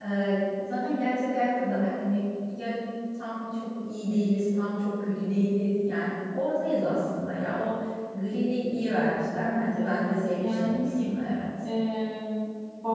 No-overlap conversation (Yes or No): No